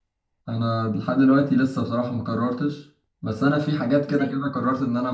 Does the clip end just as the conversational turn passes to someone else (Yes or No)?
No